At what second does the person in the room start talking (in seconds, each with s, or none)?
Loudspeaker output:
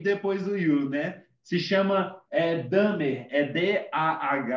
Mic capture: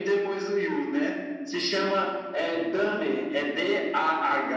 none